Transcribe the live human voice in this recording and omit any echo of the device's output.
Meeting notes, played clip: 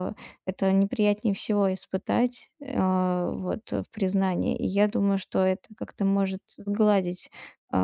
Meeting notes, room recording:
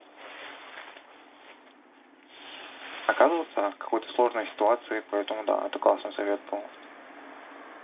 оказываться в какой-то сложной ситуации, поэтому да, это классный совет был.

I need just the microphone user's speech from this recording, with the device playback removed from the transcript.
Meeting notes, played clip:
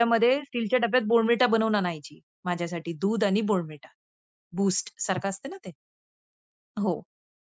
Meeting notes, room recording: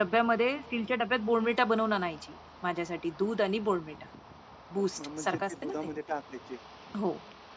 अ, म म्हणजे ते दुधामध्ये टाकायचे

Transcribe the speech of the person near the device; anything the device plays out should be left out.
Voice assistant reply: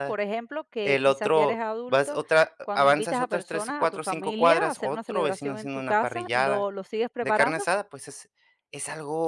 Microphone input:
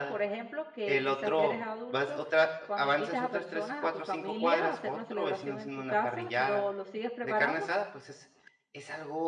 none

